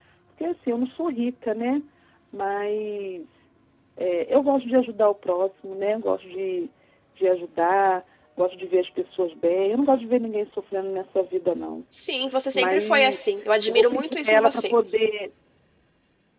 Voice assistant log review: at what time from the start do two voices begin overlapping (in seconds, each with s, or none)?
12.5 s